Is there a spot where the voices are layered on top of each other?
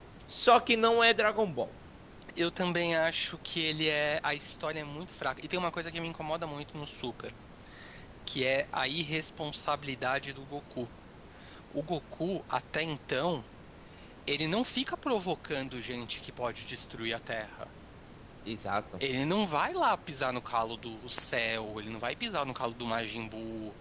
No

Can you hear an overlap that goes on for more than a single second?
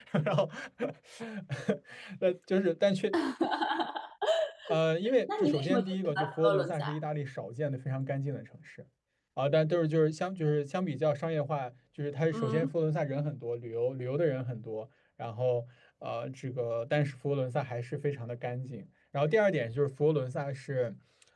Yes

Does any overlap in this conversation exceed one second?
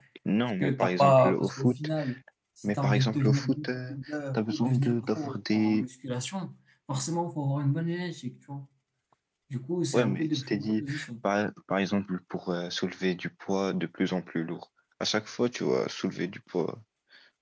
Yes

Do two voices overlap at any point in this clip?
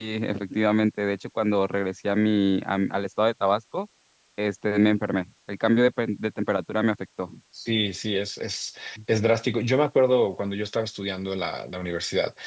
No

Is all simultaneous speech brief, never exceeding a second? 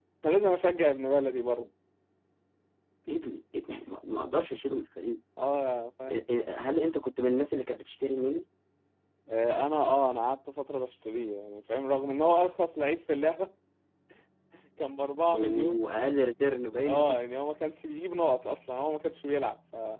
Yes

